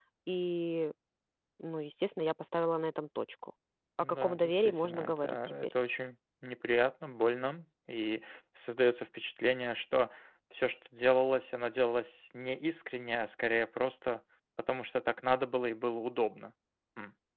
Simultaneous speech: Yes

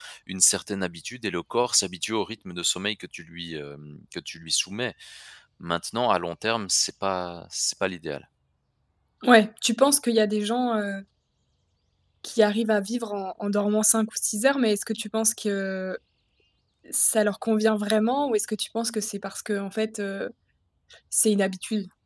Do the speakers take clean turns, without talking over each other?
Yes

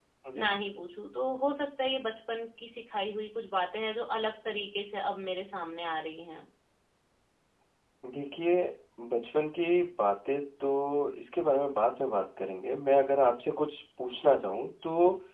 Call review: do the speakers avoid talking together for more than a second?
Yes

